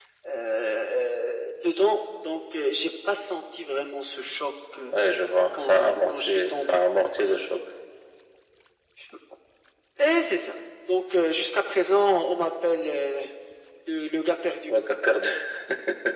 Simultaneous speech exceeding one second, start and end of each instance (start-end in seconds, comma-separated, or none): 5.5-6.8